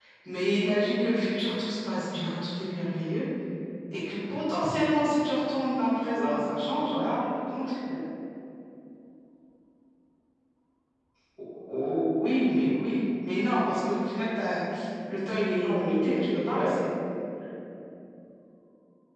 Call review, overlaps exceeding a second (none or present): present